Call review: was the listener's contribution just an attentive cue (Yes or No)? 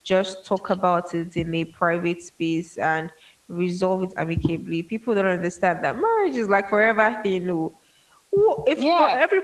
No